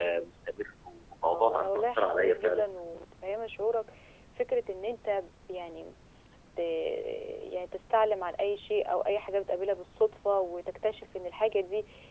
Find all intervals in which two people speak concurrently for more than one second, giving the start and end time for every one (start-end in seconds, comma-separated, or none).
1.2-2.6